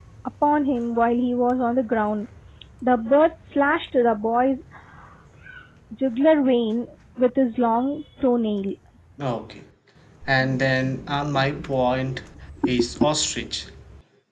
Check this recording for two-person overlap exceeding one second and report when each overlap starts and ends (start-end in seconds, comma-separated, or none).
none